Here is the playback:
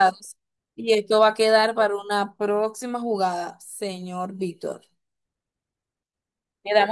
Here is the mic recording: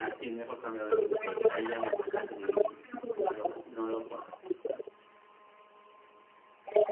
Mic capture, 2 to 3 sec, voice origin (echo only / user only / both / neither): both